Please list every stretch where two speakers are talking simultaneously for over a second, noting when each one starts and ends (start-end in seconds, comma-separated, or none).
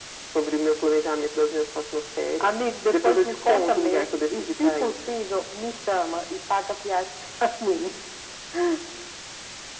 2.9-4.9